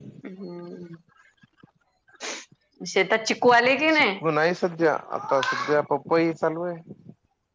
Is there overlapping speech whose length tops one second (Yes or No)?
No